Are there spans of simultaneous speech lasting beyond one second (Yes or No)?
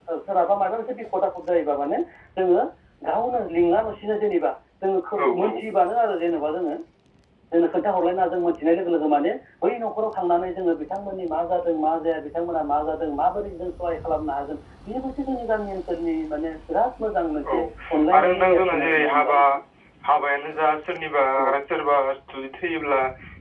Yes